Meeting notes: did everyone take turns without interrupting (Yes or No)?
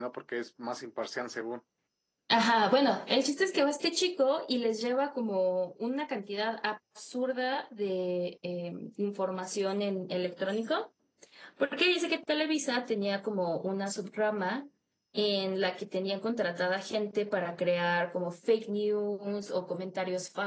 Yes